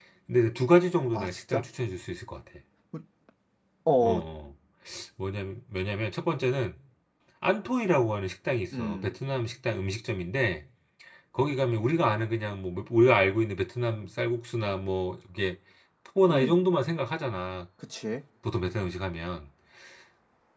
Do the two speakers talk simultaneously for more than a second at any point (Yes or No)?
No